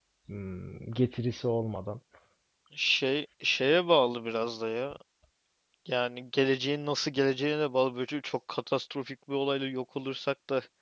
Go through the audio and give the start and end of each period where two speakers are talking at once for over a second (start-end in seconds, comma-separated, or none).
none